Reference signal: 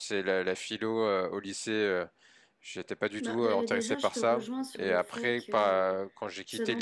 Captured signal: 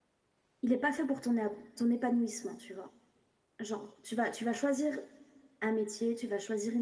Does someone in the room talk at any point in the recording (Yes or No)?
Yes